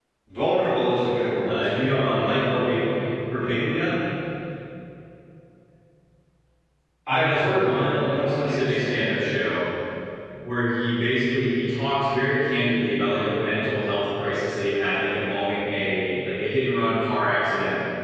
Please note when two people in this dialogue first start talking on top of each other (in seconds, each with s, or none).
1.4 s